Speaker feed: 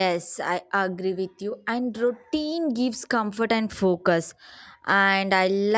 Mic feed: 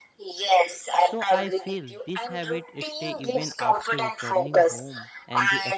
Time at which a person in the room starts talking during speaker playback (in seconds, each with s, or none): 1.0 s